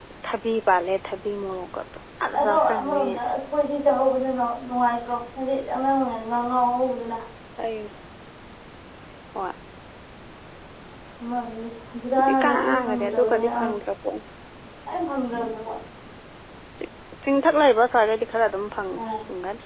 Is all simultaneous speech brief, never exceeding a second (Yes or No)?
No